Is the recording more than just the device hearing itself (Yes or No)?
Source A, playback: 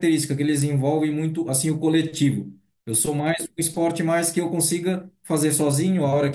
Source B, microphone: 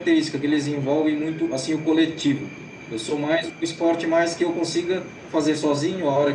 No